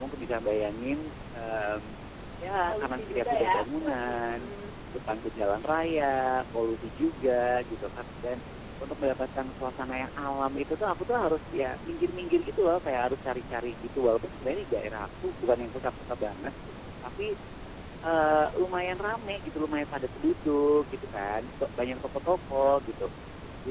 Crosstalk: present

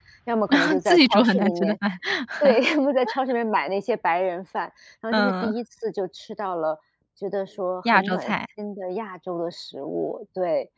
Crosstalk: present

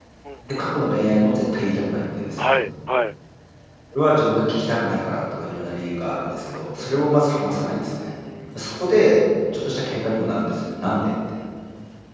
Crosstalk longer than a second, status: none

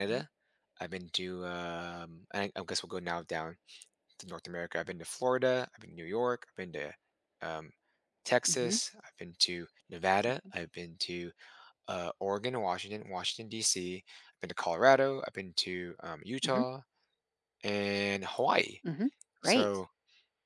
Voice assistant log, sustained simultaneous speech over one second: none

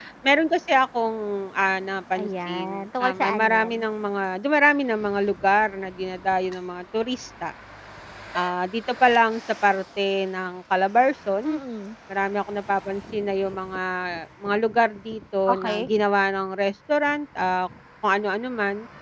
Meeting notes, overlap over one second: present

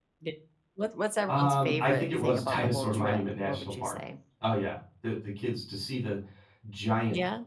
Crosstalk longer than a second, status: present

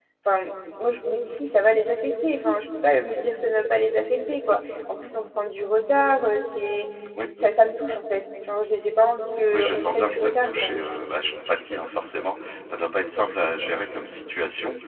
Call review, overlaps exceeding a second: present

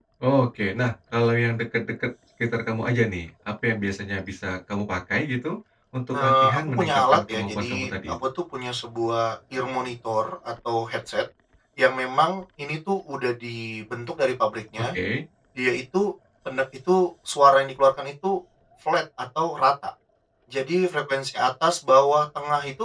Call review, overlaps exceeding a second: present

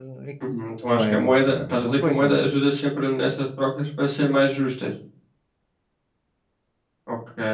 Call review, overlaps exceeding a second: present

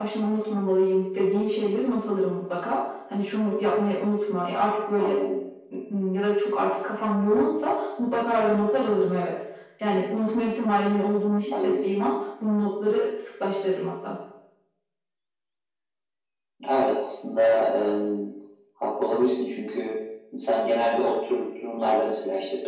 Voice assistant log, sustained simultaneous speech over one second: none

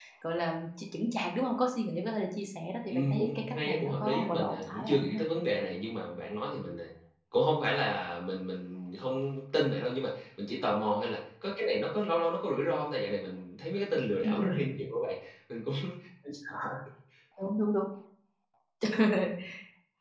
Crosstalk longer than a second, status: present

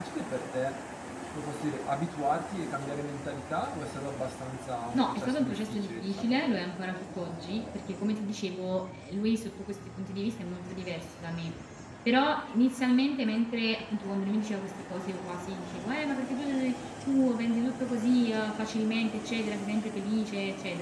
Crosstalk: present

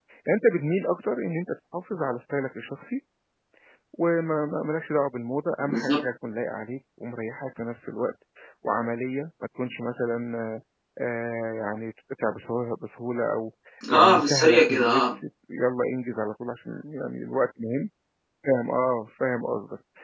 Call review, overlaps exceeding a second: present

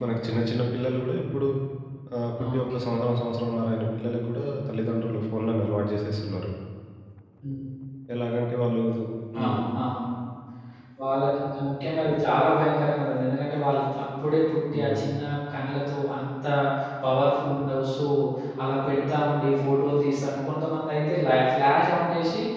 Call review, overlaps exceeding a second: none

